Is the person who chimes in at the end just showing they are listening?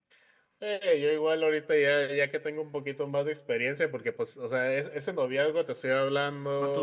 Yes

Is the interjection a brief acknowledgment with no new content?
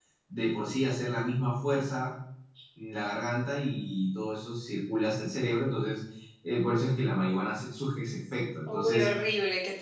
No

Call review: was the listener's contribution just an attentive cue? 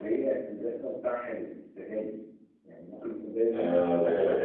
No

